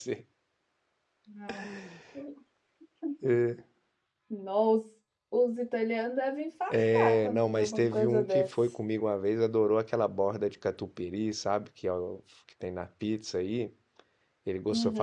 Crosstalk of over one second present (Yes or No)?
Yes